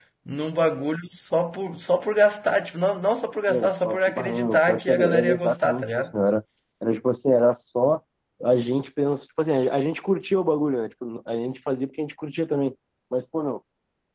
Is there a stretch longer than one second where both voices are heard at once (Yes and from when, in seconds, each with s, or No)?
Yes, from 3.5 s